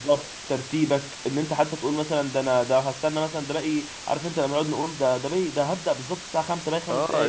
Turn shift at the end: Yes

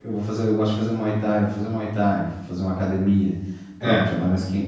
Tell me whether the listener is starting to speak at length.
No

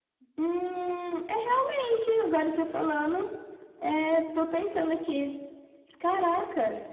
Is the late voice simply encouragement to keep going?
Yes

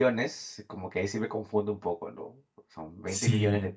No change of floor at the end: Yes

